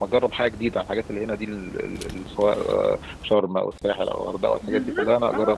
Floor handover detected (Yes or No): Yes